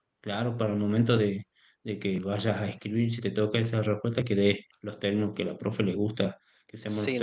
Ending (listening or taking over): taking over